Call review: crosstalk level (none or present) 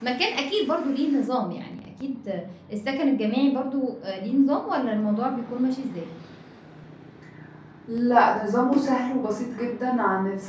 none